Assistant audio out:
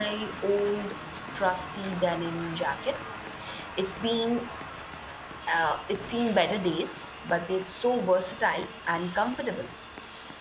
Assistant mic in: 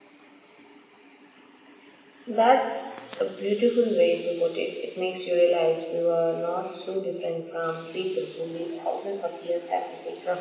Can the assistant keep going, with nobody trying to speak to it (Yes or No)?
No